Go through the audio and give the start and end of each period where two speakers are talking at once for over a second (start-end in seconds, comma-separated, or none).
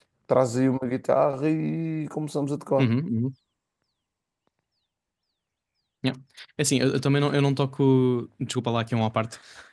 none